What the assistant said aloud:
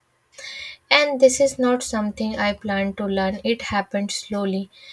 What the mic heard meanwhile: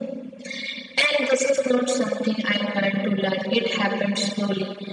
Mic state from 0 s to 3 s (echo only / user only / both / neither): echo only